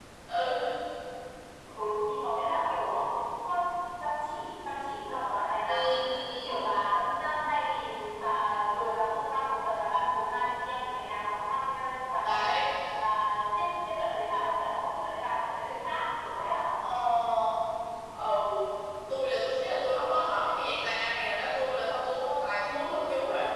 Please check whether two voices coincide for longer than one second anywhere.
No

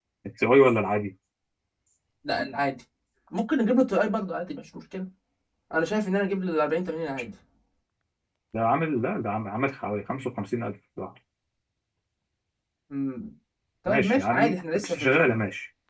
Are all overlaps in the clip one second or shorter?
No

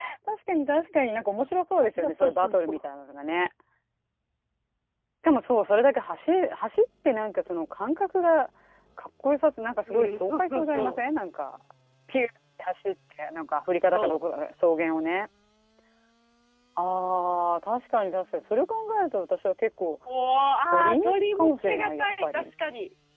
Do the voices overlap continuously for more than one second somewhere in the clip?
Yes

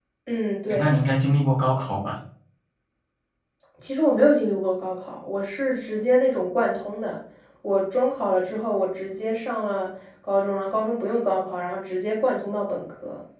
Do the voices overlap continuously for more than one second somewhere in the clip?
No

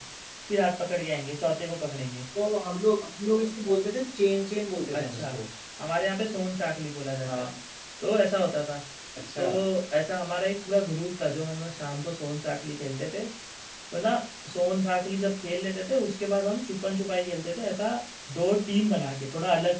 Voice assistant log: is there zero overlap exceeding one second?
Yes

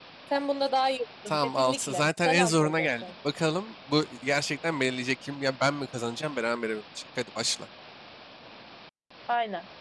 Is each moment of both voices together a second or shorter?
No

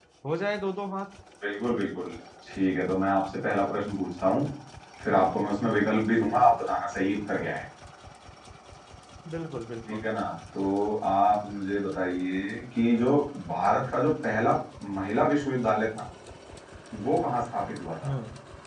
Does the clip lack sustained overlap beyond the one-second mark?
Yes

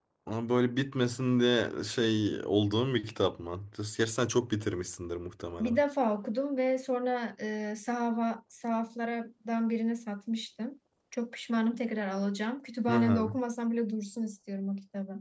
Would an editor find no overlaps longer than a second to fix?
Yes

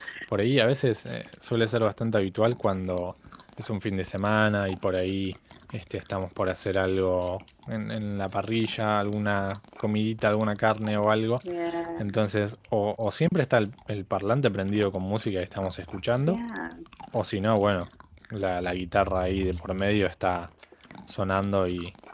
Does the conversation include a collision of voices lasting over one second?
No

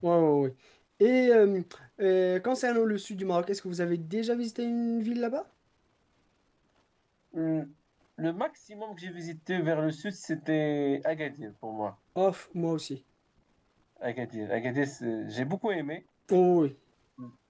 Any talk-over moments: No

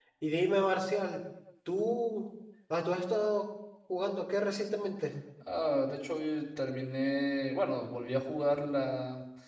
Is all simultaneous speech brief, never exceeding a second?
Yes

